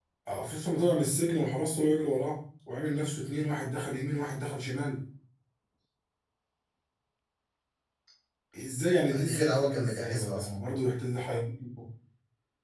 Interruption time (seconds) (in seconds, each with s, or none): 9.1 s